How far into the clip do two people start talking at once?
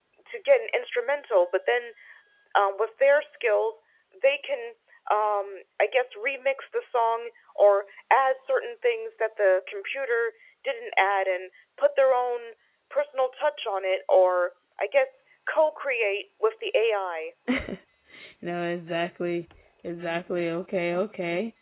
none

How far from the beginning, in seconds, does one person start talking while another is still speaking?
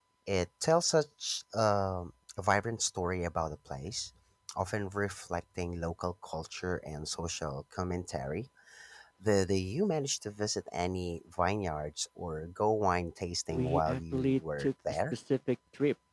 13.5 s

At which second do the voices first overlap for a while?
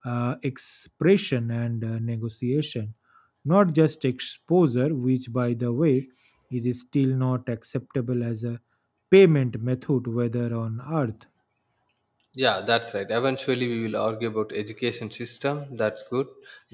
none

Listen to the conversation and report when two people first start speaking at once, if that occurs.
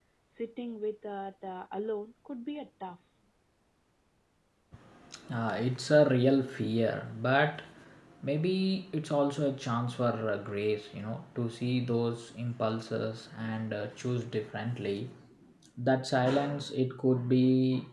none

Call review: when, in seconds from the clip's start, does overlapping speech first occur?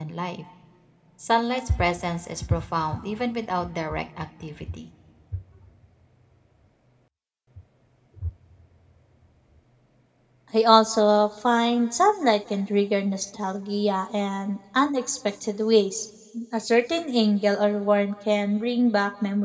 none

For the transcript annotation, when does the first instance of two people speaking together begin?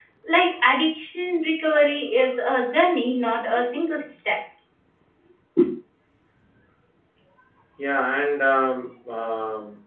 none

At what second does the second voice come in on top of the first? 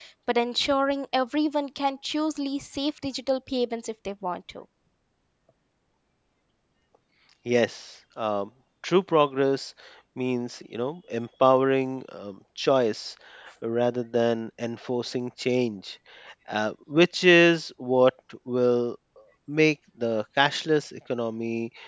none

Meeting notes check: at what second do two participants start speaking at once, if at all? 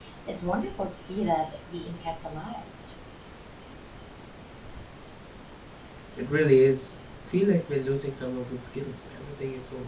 none

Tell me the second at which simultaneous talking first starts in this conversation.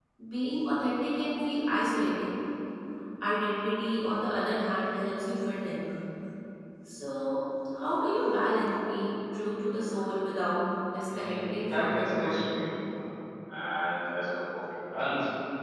11.1 s

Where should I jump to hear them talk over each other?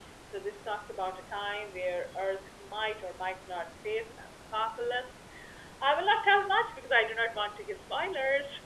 none

